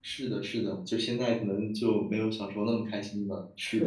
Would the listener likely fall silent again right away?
No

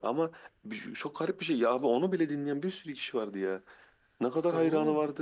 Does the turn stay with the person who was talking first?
Yes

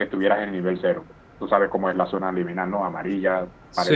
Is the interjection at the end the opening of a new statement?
Yes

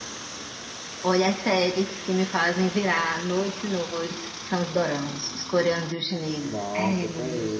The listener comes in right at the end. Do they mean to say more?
Yes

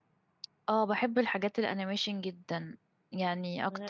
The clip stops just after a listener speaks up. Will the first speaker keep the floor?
Yes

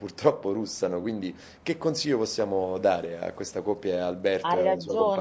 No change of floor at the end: No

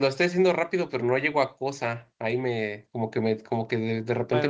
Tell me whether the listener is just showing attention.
No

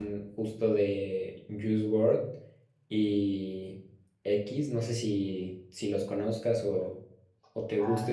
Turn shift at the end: Yes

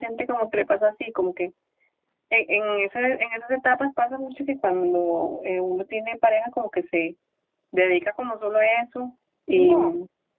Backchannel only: Yes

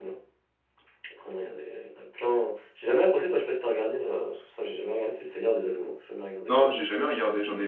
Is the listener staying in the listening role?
No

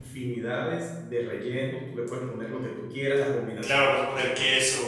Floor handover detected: Yes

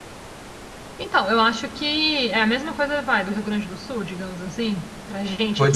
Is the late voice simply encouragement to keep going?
No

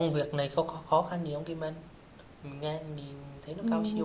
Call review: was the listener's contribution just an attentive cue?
No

